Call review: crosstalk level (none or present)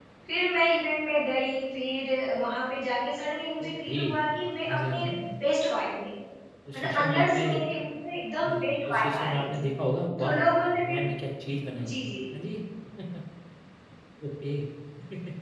present